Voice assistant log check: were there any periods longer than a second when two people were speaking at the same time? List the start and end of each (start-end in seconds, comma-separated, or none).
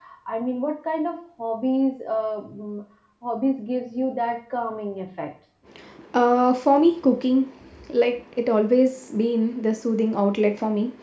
none